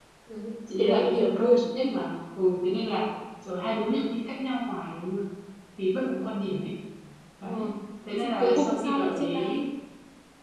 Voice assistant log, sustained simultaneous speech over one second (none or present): present